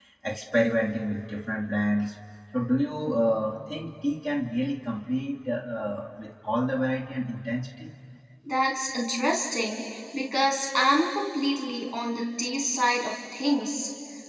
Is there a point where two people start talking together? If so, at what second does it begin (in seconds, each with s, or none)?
none